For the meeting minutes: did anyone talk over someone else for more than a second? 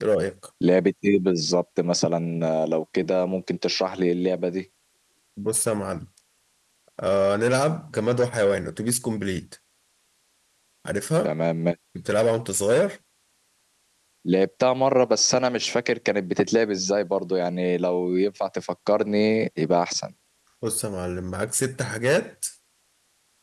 No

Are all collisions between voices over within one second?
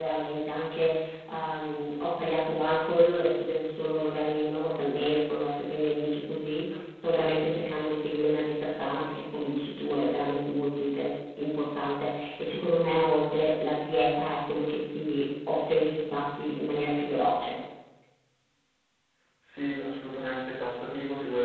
Yes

